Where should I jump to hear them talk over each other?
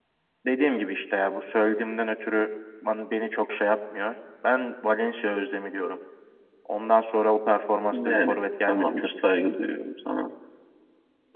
8 s

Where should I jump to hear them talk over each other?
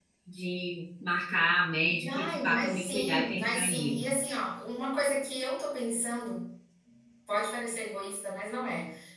2 s

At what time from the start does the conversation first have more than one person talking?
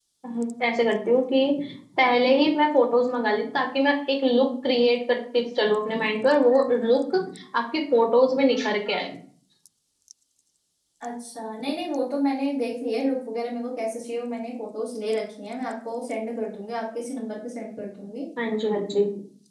none

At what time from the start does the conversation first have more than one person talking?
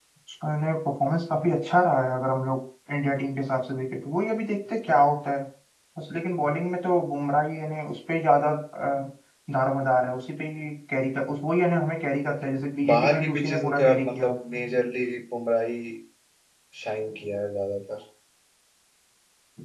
13 s

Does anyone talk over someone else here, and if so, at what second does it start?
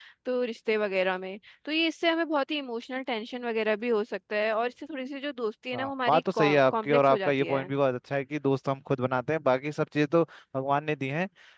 6 s

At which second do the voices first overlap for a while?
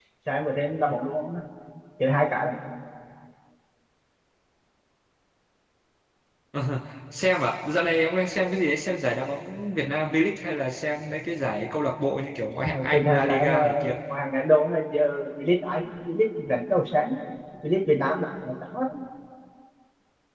13 s

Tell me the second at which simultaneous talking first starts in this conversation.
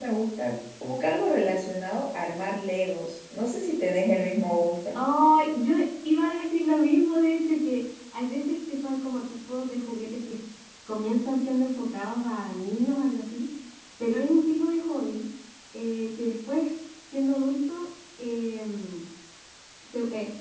none

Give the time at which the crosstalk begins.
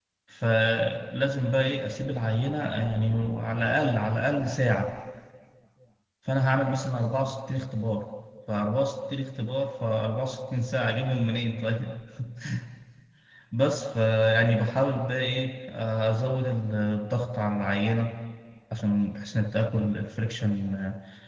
none

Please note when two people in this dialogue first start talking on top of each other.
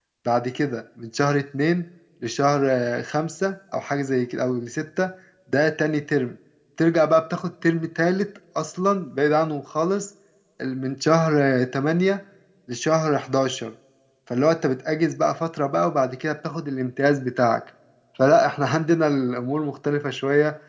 none

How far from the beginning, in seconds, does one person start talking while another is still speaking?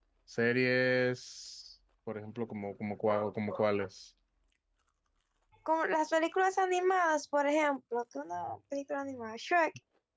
none

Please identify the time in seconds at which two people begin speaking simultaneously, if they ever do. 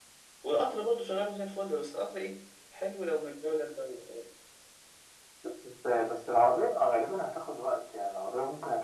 none

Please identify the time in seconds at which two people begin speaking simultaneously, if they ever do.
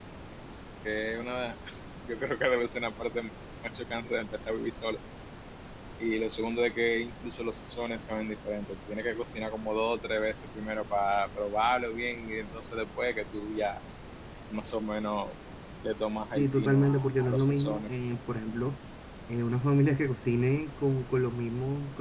16 s

